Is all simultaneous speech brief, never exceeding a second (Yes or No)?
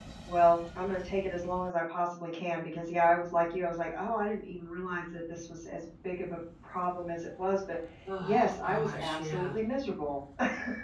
No